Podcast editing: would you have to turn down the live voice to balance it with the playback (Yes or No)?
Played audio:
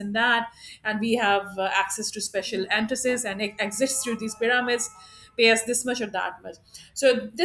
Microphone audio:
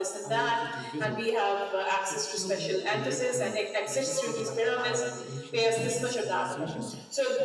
No